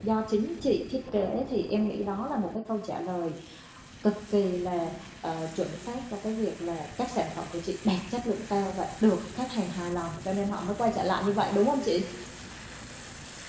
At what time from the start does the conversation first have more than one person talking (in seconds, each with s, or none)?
none